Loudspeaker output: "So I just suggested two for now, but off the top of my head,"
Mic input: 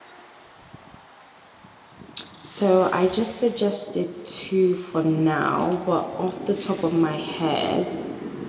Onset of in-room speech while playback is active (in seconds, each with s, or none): none